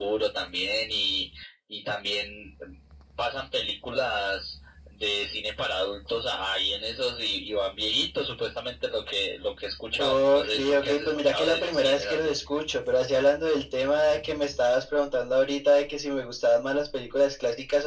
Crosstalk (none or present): present